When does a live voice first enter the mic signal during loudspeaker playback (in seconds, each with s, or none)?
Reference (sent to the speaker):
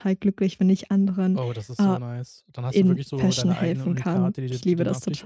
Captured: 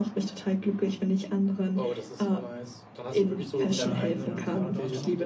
3.7 s